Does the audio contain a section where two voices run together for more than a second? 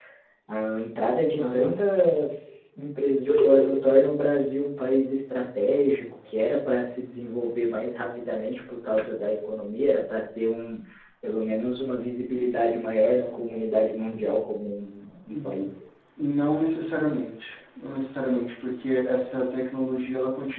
No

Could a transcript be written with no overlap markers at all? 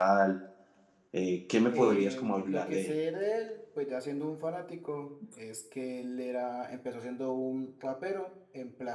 No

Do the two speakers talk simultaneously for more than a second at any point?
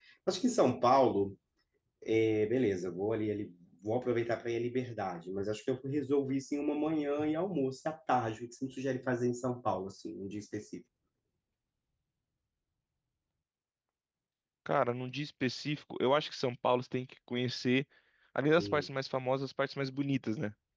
No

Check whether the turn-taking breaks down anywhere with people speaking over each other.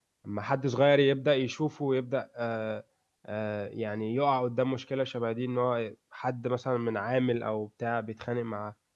No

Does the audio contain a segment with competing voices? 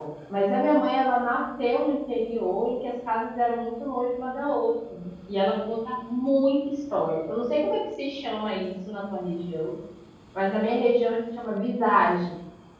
No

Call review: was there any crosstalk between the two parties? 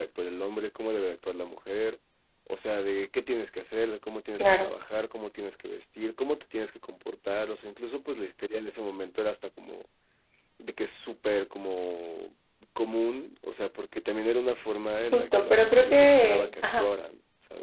Yes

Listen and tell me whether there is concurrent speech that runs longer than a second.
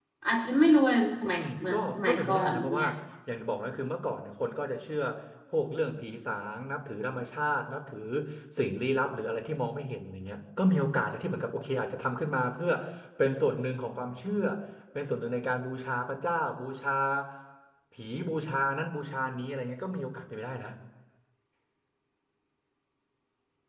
Yes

